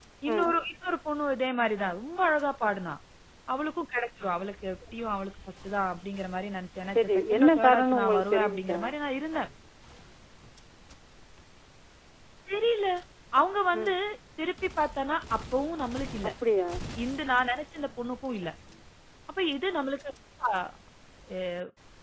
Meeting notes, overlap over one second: present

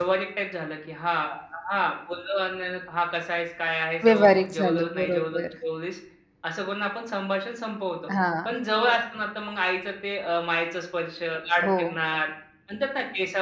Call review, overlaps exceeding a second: present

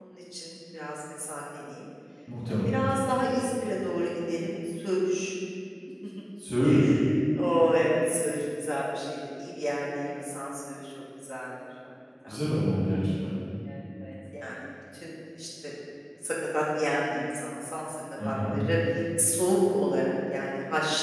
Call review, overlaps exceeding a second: none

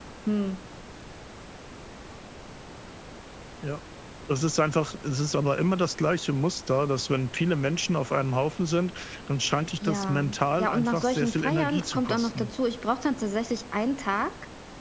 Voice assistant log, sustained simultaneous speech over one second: present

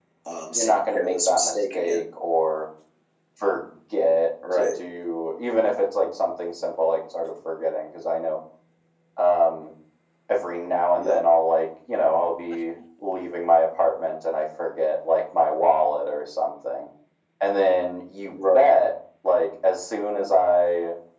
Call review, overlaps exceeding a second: present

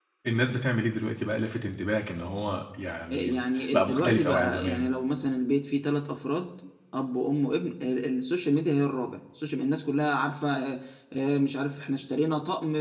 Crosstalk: present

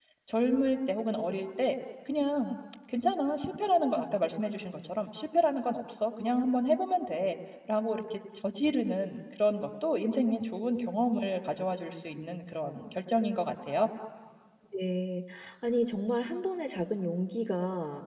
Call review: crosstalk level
none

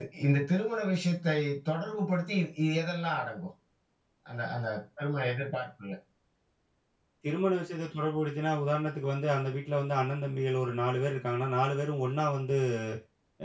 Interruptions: none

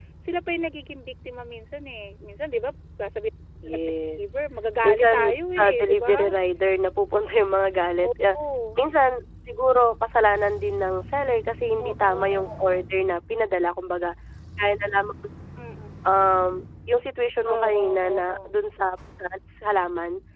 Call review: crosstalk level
present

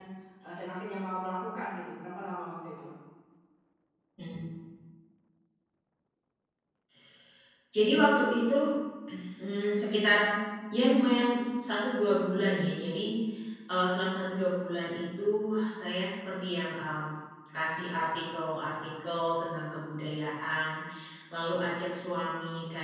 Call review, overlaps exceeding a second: none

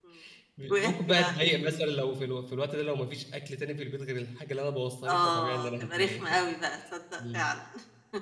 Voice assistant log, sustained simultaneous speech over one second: present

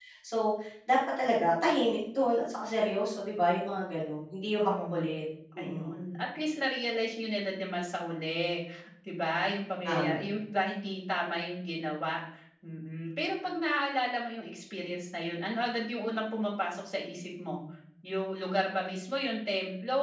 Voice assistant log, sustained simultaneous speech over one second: none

